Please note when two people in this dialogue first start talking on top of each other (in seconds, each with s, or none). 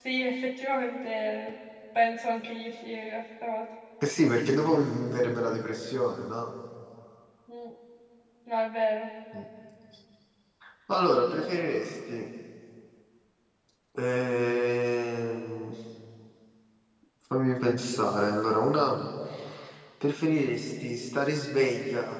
none